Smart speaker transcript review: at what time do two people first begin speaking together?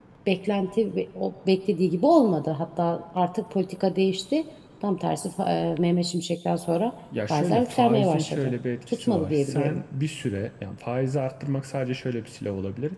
7.1 s

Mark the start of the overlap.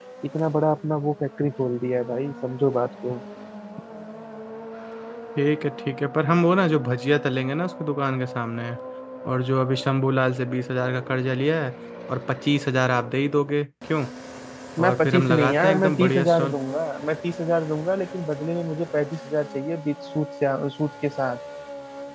14.8 s

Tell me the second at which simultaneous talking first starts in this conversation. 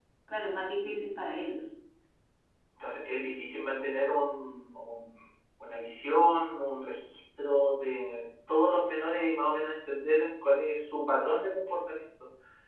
none

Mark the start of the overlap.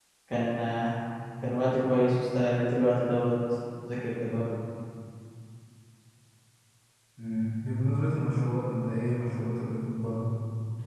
none

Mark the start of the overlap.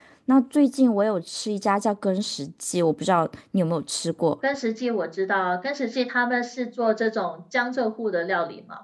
none

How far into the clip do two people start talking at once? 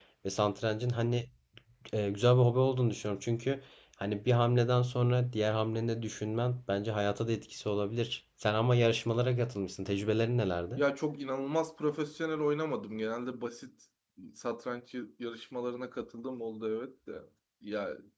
none

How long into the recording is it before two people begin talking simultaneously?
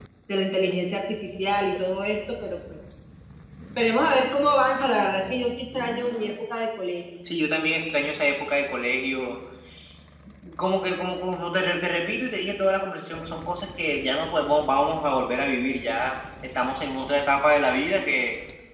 none

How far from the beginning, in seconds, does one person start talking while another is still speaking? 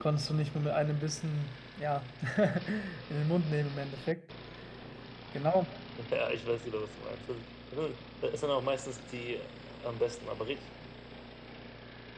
none

